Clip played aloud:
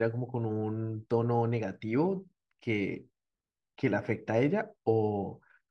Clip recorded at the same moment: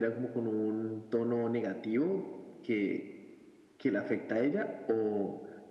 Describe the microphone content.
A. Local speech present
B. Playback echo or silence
B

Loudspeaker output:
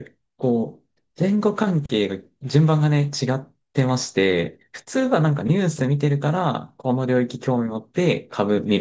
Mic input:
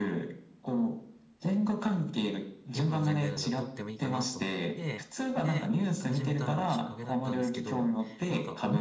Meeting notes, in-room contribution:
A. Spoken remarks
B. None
A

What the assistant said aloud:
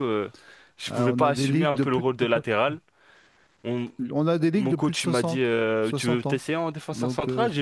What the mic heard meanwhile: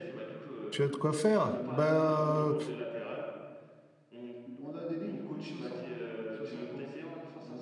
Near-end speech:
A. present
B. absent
A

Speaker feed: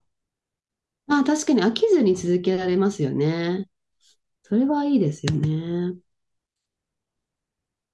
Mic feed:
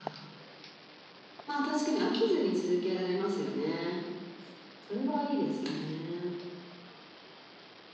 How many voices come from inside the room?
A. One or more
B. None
B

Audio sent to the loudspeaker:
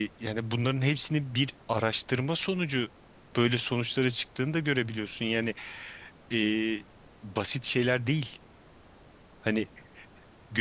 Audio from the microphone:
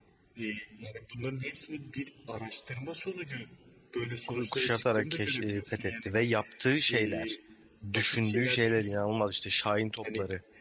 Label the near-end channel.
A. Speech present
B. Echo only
A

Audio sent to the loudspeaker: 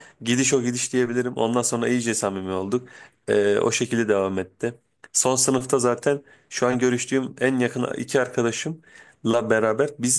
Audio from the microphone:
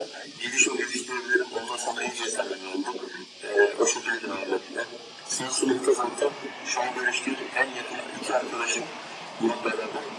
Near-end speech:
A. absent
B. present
A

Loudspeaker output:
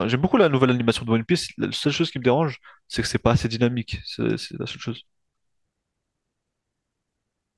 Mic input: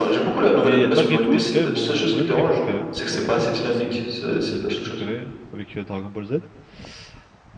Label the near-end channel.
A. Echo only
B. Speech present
B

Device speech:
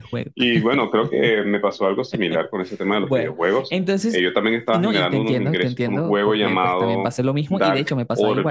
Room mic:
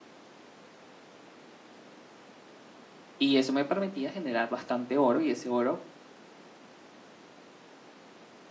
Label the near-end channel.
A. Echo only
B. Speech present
B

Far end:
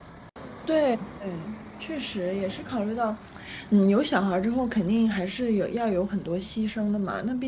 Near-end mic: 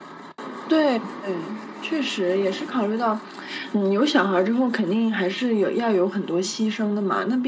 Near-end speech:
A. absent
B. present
A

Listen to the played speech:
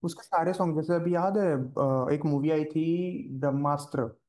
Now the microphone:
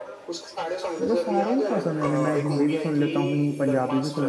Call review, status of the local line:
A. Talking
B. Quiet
A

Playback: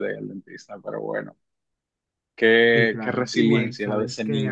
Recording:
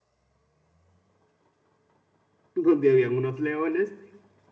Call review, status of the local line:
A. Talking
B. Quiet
A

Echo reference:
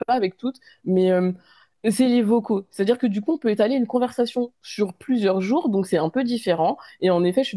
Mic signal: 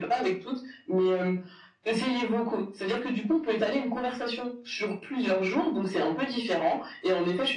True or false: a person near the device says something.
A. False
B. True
A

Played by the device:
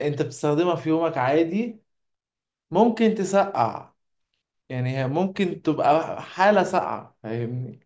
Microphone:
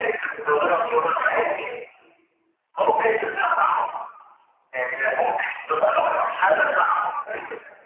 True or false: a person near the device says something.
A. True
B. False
B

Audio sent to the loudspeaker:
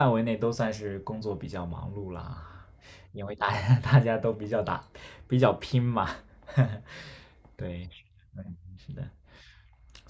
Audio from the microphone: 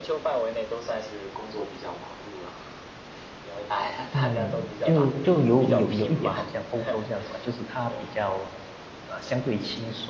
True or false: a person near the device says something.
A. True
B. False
A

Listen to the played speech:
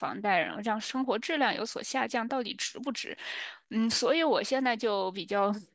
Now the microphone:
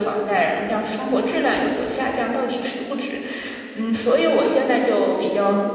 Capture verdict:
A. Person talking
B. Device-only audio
B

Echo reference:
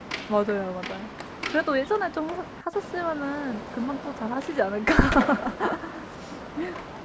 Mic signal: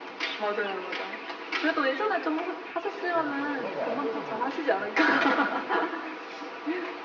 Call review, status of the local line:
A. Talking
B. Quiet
A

